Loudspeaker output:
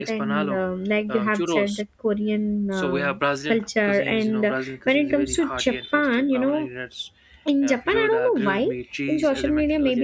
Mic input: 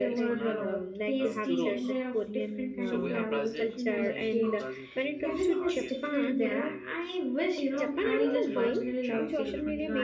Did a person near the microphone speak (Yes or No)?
Yes